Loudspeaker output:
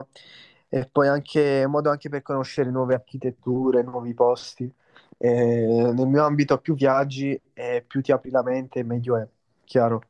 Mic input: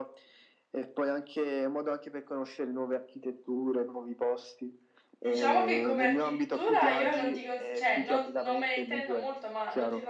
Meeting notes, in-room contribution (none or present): present